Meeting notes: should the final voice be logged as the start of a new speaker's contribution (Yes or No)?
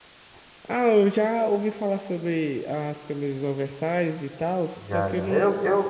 Yes